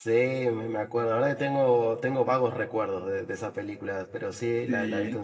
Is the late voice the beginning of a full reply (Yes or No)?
No